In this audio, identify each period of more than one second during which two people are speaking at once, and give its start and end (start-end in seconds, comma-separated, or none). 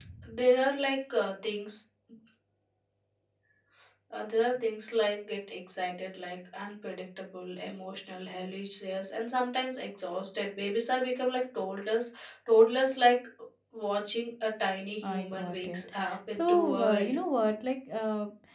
15.0-17.2